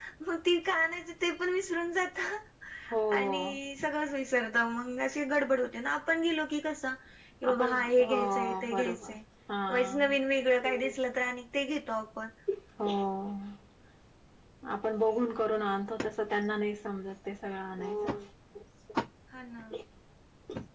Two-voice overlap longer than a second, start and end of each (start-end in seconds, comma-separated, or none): 7.5-9.1